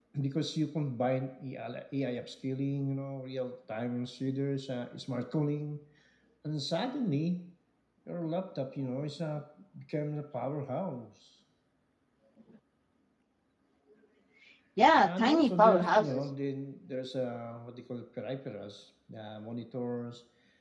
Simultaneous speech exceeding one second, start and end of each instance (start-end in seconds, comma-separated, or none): 15.0-16.2